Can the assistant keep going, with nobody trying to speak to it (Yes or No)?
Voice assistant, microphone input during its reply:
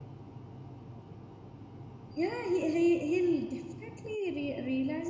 No